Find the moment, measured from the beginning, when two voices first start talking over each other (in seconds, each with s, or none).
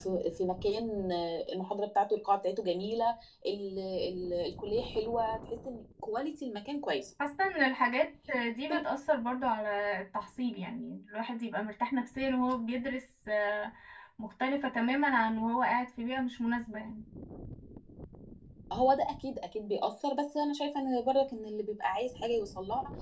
none